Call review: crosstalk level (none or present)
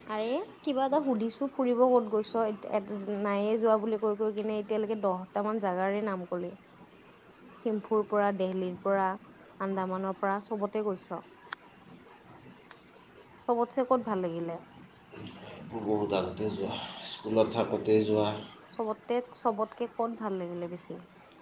none